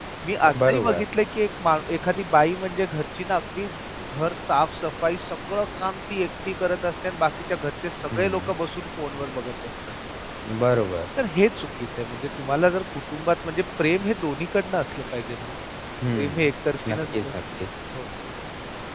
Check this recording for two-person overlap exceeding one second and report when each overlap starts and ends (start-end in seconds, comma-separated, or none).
none